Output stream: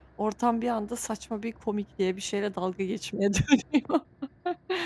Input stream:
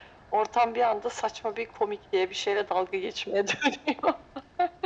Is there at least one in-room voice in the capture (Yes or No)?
No